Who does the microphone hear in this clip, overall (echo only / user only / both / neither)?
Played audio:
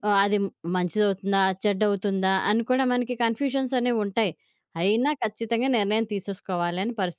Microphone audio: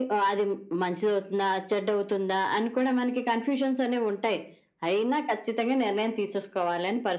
echo only